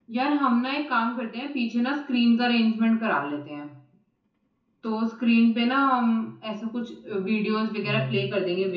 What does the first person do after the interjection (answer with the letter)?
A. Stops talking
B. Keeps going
B